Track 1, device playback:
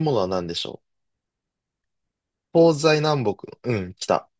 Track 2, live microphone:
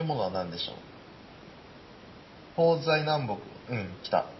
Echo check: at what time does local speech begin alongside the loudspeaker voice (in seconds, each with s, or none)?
none